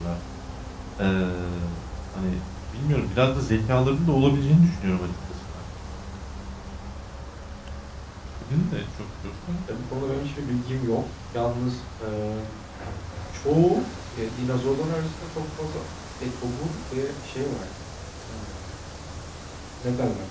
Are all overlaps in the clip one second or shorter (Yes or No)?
Yes